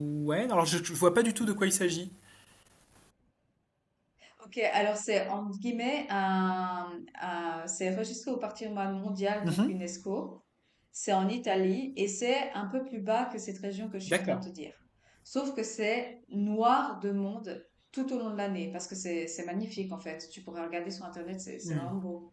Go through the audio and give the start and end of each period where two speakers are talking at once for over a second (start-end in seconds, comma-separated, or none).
none